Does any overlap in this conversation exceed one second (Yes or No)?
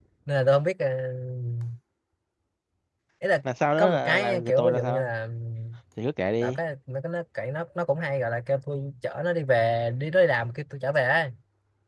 Yes